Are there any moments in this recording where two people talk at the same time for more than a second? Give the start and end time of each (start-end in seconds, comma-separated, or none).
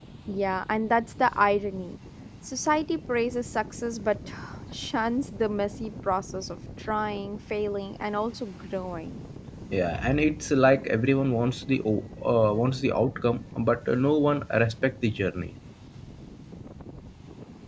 none